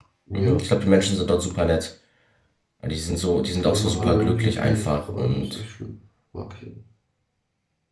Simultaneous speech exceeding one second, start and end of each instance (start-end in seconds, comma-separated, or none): 3.7-5.6